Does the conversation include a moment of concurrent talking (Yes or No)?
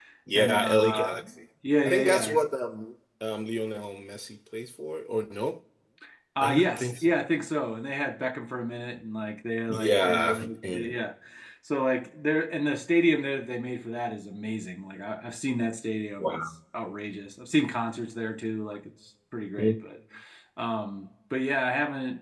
Yes